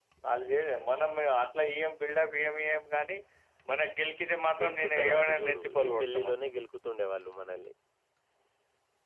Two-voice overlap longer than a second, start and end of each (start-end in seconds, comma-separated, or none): 4.6-6.0